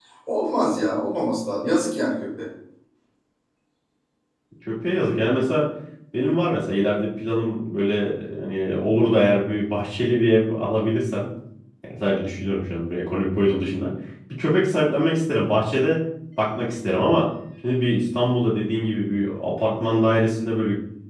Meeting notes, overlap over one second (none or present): none